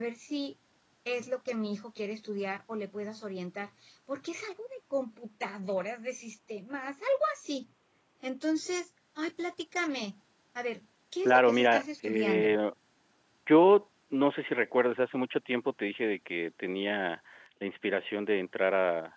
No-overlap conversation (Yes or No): No